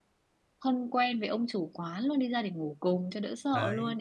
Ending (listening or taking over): taking over